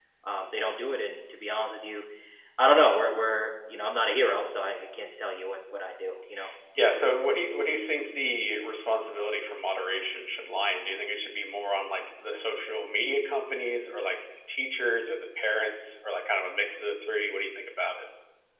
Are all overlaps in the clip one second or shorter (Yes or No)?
Yes